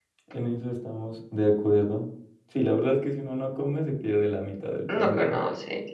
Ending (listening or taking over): taking over